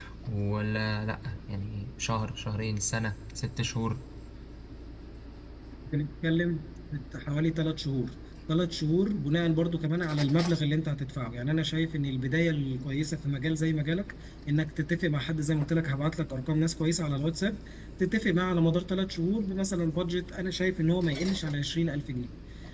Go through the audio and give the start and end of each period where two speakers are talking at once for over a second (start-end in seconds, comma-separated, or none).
none